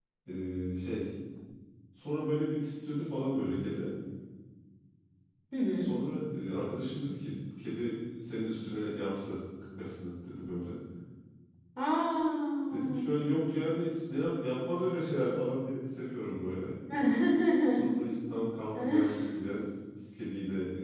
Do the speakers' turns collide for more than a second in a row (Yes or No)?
No